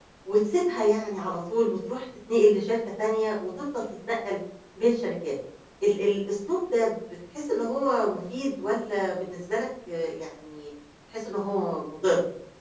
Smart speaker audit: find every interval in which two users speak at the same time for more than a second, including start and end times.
none

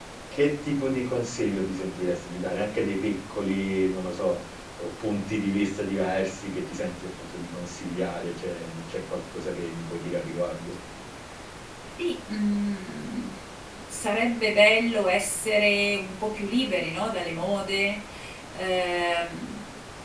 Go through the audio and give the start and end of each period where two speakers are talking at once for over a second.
none

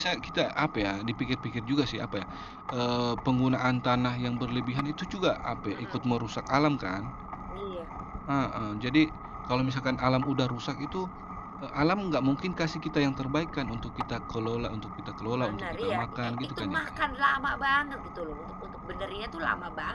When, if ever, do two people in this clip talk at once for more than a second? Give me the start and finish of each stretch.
15.3-17.0

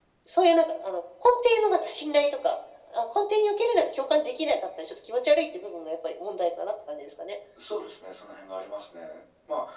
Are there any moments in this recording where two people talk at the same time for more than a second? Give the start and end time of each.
none

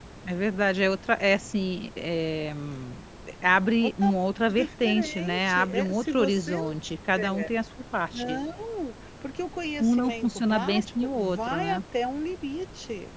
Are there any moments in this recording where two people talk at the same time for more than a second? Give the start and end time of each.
4.5-6.7, 9.8-11.8

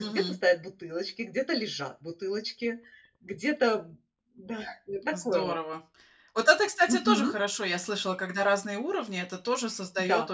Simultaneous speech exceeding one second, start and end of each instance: none

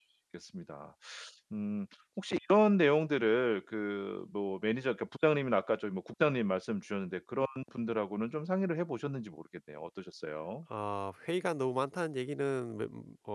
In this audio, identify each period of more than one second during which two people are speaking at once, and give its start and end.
none

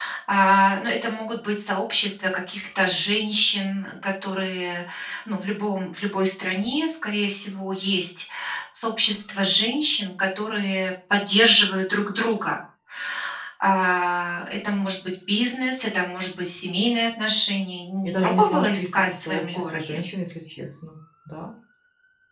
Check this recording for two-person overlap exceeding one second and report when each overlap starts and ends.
18.1-20.0

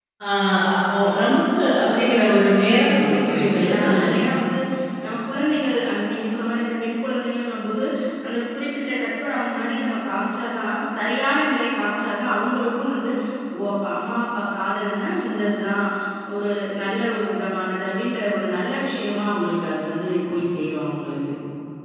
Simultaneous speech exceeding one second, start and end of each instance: 2.9-4.1

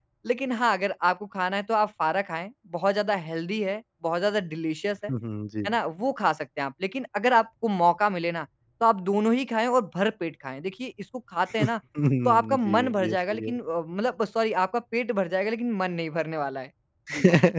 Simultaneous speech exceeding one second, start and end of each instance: 12.2-13.6

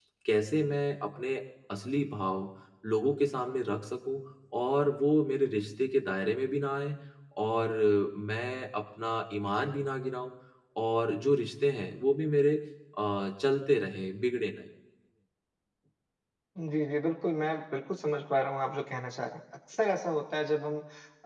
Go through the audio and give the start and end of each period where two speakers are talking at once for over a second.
none

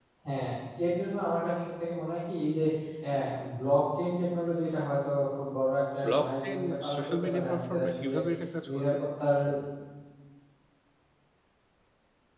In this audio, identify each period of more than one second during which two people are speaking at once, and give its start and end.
6.0-8.2

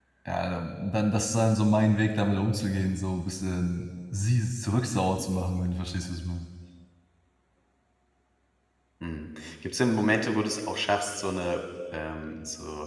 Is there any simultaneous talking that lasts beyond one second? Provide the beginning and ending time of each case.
none

